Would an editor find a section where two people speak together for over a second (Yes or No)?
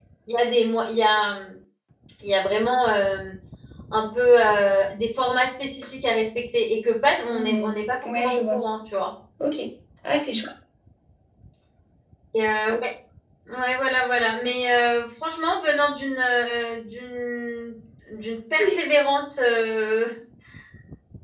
Yes